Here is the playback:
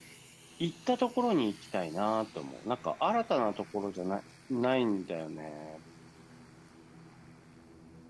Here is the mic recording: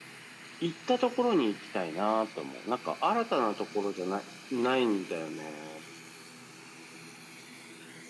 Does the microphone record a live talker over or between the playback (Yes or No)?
No